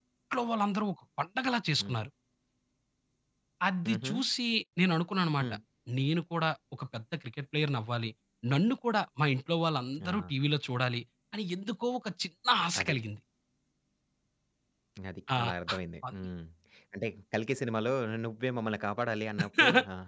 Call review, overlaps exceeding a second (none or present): none